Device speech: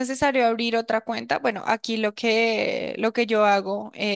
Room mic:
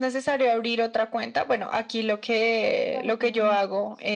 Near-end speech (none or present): present